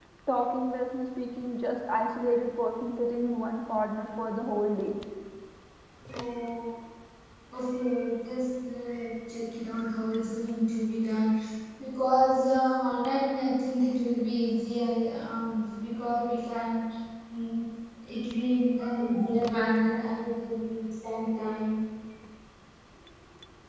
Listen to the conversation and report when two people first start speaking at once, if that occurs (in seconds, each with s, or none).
none